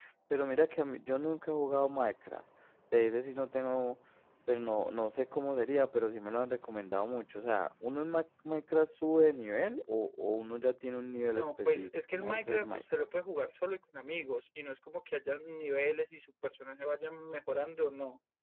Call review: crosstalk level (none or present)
present